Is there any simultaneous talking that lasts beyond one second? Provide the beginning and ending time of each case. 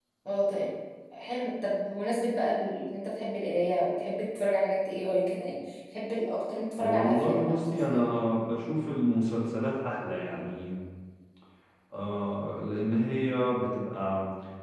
6.8-8.0

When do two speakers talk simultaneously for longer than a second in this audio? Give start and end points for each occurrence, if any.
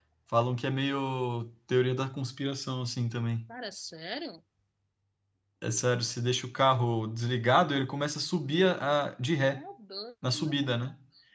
none

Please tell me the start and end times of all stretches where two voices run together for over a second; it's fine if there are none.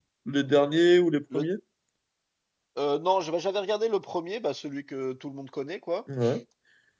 none

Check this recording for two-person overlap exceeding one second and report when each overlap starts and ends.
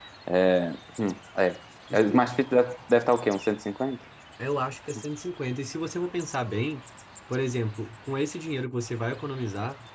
none

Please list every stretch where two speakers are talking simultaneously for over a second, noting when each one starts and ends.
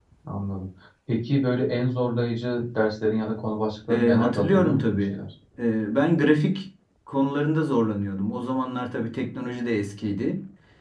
3.9-5.2

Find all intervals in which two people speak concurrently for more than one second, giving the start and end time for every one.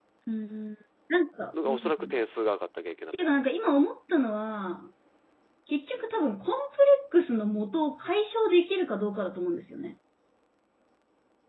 none

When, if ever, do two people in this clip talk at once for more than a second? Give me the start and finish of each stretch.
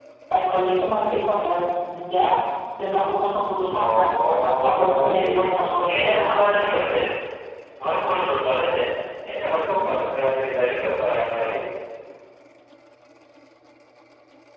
3.8-6.2

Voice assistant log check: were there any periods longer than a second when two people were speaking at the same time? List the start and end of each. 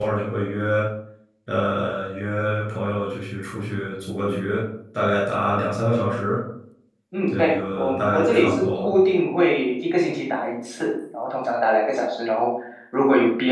7.3-8.9

